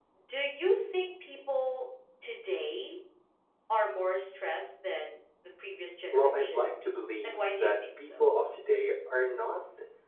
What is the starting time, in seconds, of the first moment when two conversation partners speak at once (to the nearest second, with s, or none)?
6 s